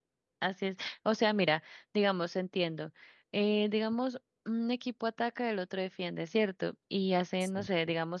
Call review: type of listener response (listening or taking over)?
listening